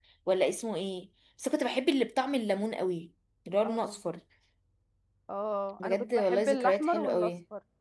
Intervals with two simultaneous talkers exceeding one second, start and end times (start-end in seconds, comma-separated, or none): 5.8-7.3